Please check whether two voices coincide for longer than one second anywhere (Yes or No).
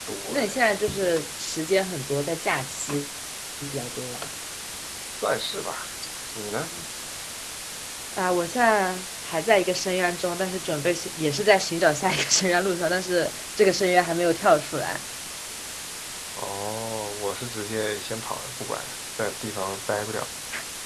No